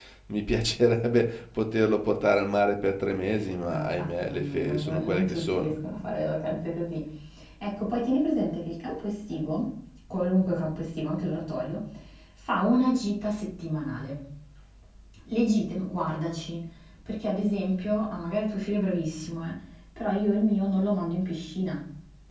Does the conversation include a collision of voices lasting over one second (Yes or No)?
Yes